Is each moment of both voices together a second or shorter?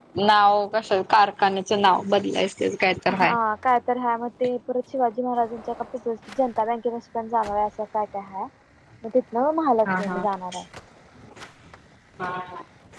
Yes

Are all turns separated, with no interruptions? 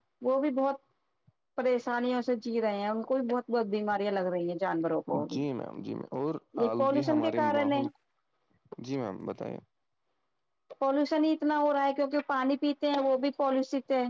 No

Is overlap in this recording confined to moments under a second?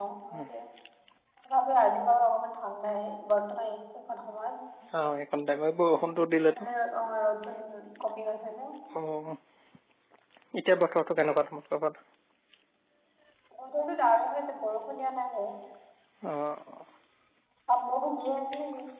Yes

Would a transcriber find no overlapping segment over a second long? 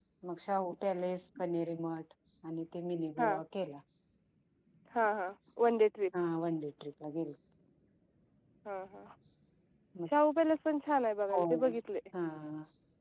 Yes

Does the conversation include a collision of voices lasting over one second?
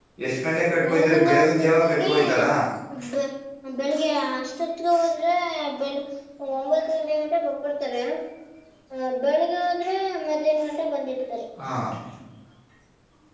Yes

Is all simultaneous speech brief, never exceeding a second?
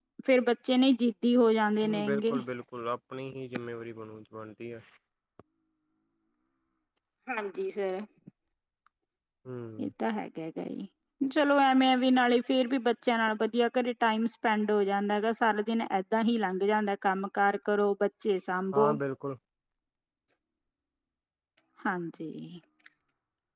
Yes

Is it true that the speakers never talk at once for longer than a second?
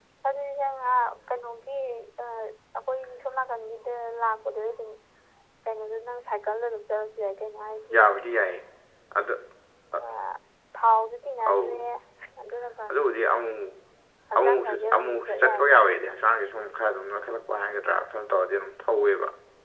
No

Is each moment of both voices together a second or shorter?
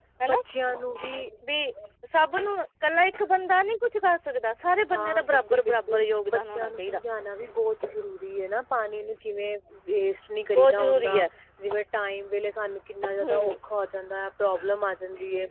No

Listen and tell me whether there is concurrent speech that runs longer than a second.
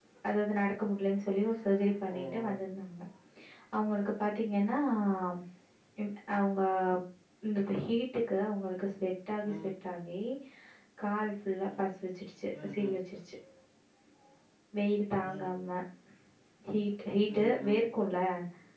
No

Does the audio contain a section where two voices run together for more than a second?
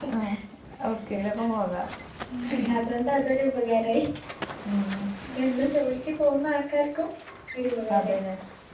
No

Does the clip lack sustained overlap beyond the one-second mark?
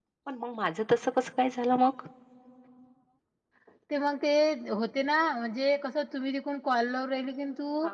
Yes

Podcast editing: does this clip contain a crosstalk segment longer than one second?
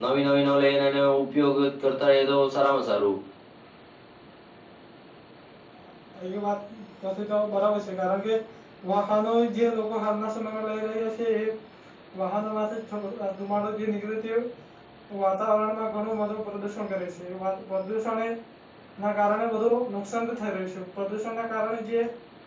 No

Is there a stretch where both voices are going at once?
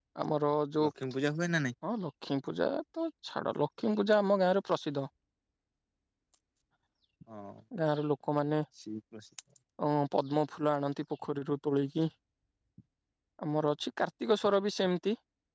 No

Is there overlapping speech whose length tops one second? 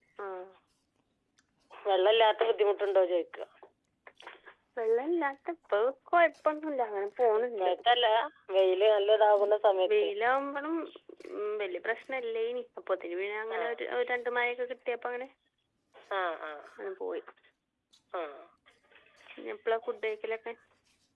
No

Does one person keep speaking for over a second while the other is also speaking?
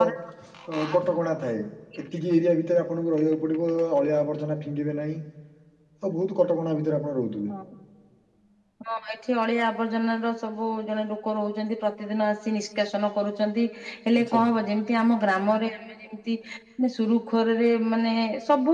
No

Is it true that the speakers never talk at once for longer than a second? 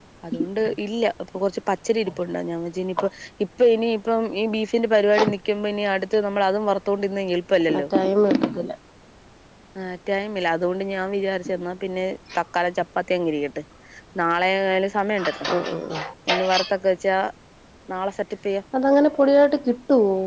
Yes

